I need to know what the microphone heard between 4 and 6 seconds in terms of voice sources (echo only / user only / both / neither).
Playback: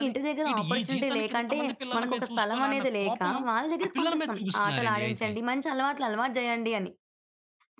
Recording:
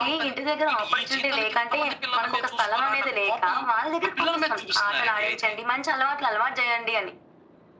echo only